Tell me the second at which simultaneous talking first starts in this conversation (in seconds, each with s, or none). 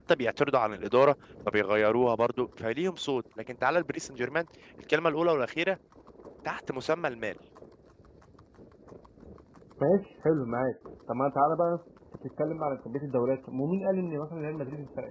none